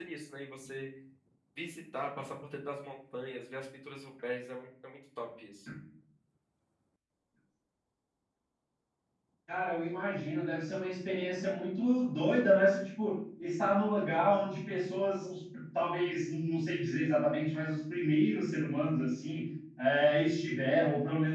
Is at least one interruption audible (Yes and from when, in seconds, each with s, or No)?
No